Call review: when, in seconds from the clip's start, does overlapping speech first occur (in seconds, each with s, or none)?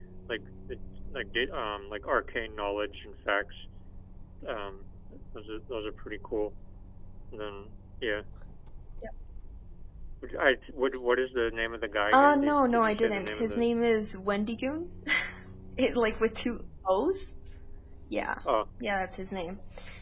12.1 s